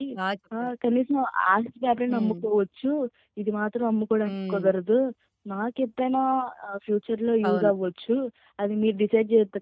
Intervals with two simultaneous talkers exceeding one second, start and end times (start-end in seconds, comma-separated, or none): none